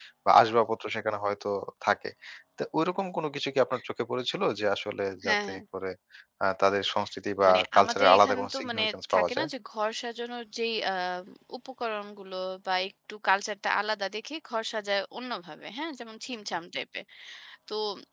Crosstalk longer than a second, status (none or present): present